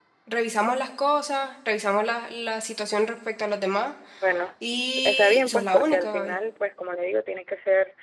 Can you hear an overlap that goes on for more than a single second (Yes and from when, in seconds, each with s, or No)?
Yes, from 5.0 s